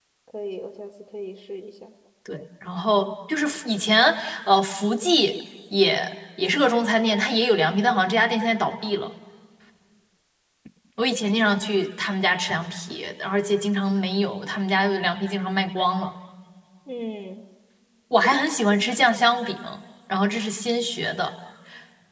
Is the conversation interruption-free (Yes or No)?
Yes